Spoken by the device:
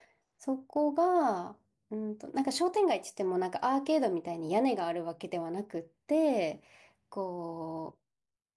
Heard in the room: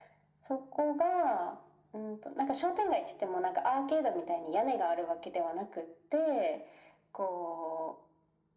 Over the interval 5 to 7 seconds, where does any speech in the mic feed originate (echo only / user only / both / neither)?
echo only